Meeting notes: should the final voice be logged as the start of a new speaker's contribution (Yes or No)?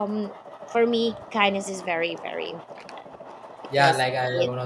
Yes